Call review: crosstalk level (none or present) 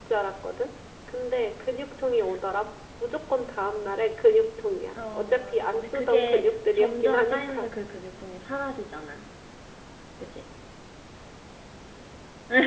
present